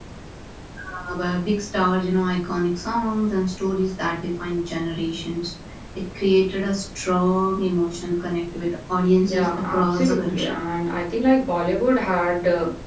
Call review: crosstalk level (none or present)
present